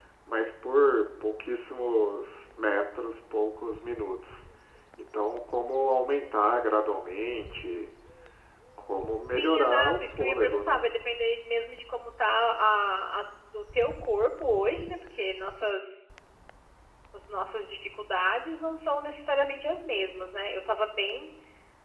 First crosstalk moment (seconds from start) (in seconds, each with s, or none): 9.3 s